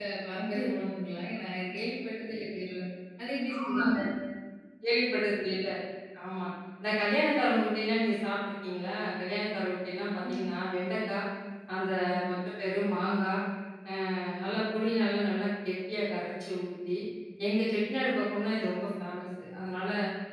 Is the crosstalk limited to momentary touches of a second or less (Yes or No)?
Yes